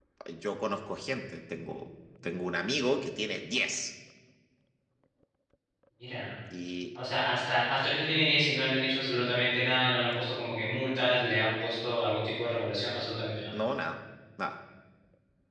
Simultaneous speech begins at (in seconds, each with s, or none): none